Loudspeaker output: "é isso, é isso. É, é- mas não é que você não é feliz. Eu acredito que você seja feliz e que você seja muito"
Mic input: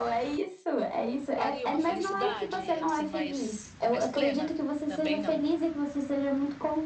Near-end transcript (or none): traria uma felicidade assim mais, mais plena? Também não.